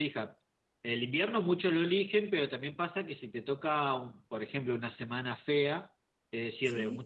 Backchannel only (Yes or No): Yes